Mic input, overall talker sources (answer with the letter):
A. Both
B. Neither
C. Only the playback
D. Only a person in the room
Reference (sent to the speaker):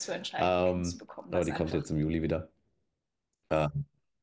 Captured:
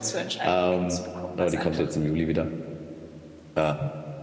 C